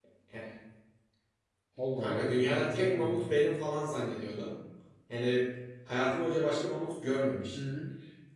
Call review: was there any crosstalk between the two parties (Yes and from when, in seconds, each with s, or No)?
Yes, from 2.0 s